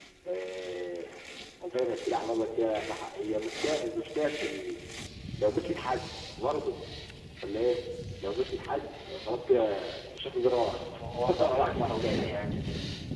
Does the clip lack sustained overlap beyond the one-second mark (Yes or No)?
No